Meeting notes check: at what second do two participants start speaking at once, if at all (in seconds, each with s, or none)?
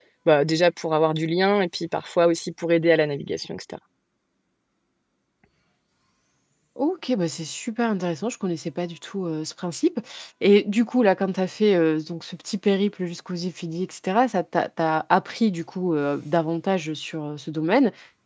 none